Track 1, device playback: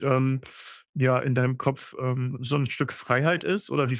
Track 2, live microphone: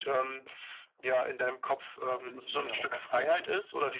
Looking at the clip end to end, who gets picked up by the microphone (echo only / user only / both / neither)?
both